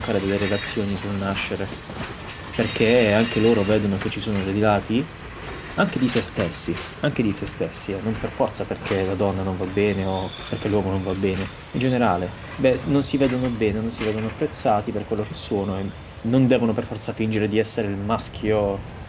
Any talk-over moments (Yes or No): No